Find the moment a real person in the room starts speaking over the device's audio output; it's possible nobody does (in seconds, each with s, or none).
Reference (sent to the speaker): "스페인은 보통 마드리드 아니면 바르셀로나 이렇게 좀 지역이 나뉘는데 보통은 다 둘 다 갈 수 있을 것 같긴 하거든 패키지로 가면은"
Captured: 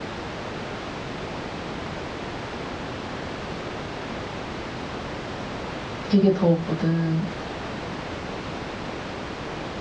6.0 s